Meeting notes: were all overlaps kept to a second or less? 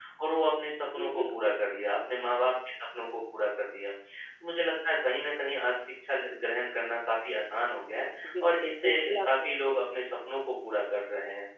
No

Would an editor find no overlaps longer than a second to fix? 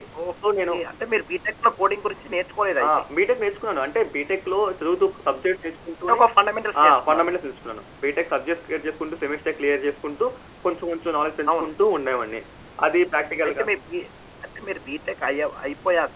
Yes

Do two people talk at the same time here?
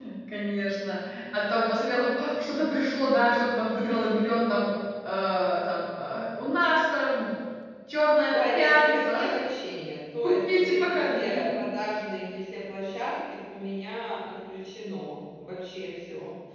Yes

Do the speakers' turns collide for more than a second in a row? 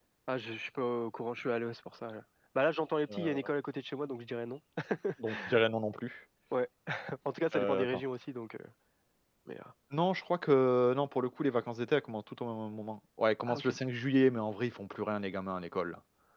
No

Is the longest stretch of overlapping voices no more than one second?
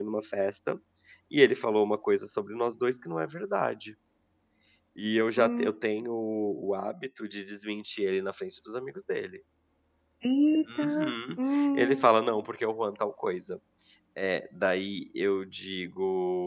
No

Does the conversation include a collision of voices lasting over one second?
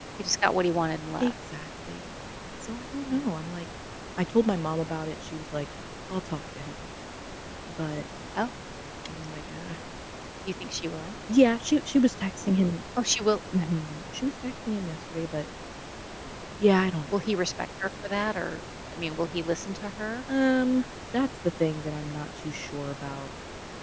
No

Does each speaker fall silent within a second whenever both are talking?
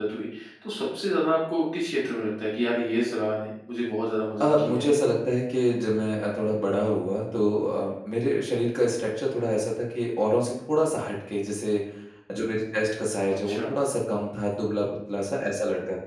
Yes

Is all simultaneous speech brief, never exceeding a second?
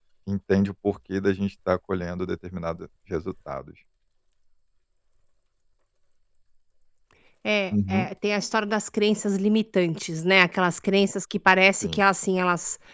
Yes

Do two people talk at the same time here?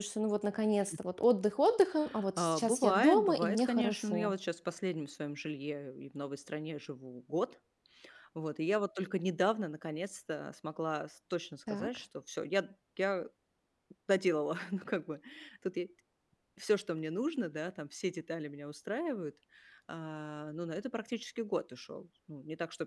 Yes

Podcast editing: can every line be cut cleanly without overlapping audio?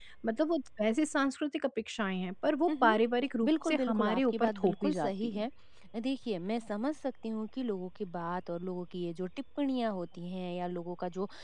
No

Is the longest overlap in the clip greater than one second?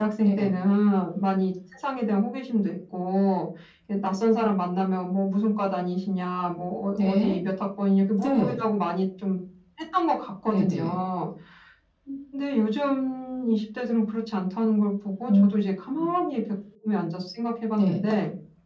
No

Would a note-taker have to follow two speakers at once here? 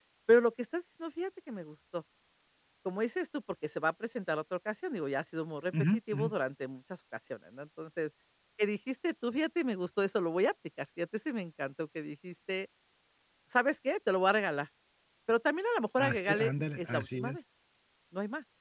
Yes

